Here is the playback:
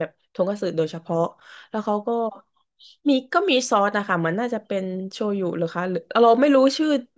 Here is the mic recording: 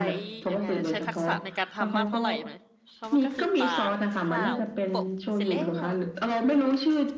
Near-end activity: present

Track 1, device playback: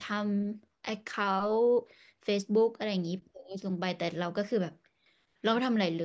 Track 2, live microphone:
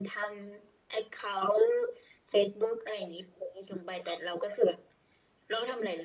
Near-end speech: none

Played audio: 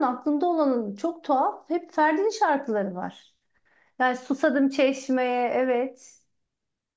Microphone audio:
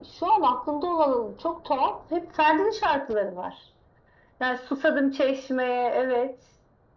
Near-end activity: none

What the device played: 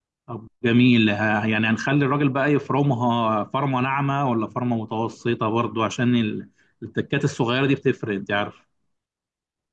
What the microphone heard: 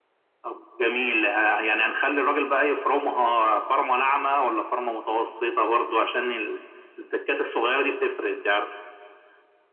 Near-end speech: none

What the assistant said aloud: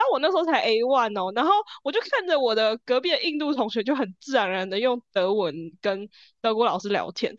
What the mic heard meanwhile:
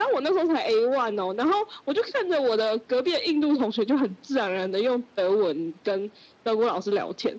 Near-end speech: none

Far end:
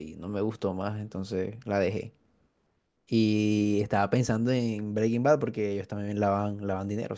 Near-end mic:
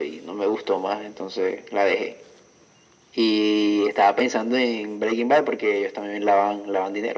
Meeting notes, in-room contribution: none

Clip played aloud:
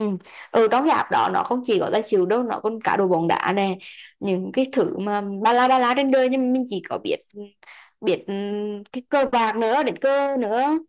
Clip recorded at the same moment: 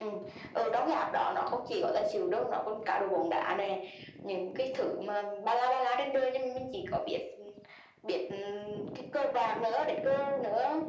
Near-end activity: none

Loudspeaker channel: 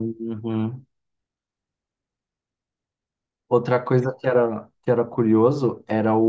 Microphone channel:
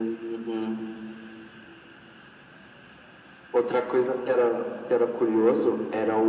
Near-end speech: none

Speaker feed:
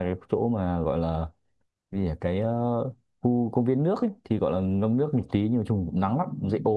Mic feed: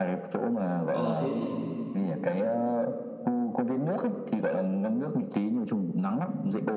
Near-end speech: present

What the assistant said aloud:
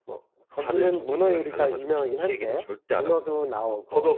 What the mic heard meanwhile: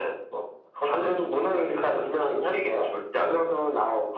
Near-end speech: none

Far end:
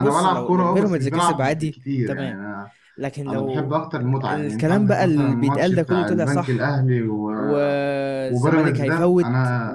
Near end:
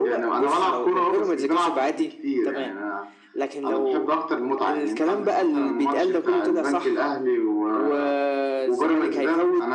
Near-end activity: none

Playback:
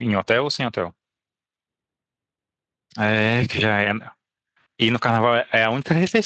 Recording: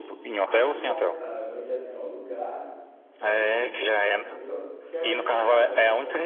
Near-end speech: present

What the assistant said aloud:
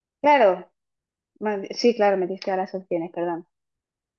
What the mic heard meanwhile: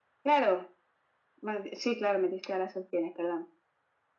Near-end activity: none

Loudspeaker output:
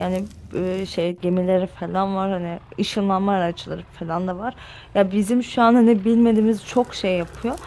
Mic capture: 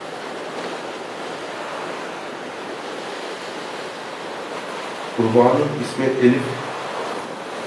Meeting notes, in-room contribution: present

